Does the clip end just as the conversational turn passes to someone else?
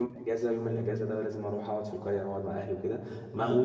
No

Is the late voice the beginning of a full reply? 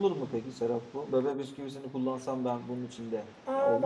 Yes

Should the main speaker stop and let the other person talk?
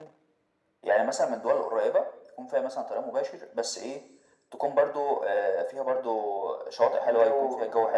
No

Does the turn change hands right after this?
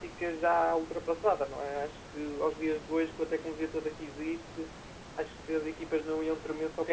Yes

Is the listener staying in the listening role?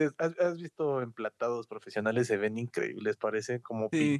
No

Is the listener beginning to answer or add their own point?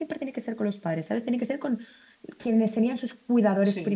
Yes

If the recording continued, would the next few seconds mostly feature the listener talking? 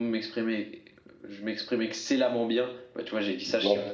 No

